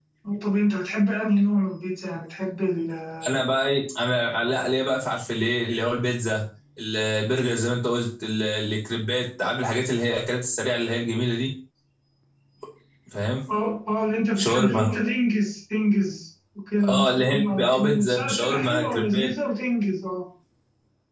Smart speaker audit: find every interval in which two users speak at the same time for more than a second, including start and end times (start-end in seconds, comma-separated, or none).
16.9-19.3